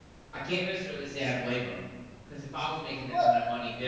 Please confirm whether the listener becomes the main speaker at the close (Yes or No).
No